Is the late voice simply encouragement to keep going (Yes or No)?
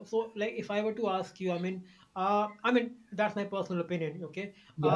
Yes